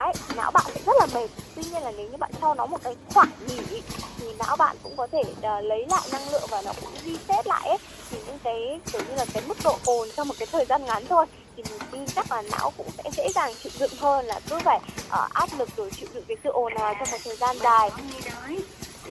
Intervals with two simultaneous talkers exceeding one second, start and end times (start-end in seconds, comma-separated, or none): 16.7-17.9